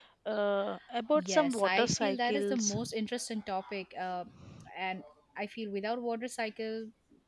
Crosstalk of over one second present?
Yes, from 1.1 s

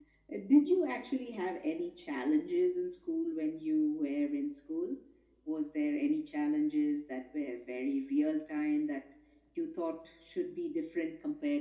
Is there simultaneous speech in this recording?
No

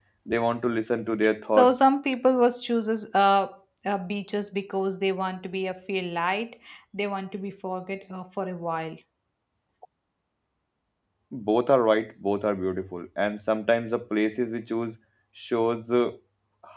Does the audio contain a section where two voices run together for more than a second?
No

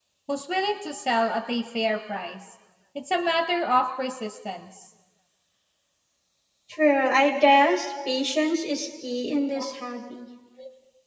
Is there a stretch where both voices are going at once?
No

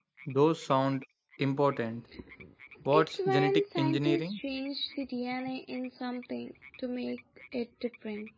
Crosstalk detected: Yes, from 2.9 s

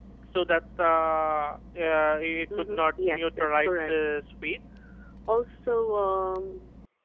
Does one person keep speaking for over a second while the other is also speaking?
Yes, from 2.5 s

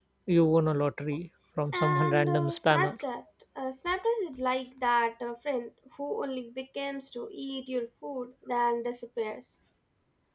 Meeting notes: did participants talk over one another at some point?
Yes, from 1.7 s

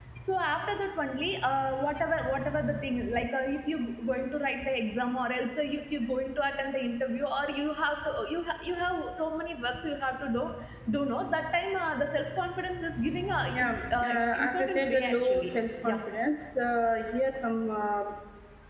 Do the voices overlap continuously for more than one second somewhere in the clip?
Yes, from 13.6 s

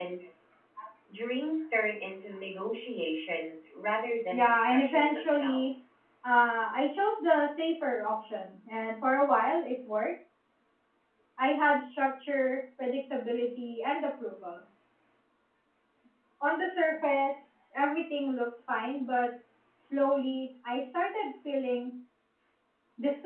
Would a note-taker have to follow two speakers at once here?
Yes, from 4.3 s

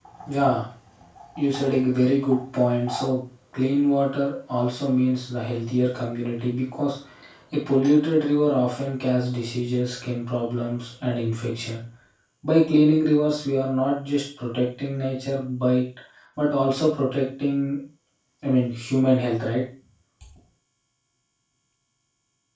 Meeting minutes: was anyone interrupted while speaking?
No

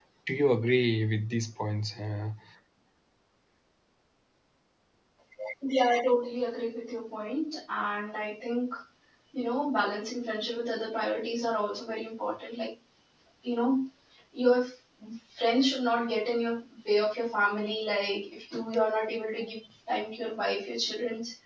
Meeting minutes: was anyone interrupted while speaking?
No

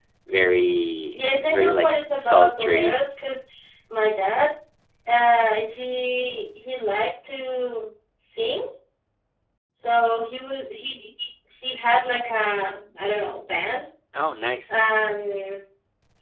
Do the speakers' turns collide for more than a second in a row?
Yes, from 1.1 s

